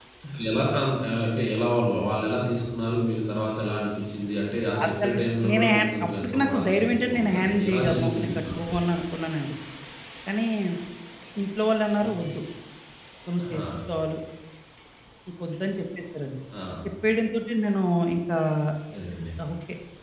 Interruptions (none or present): present